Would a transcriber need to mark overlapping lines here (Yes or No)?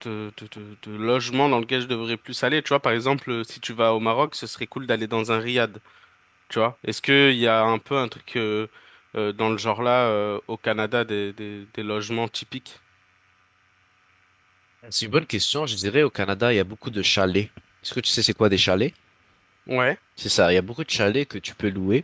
No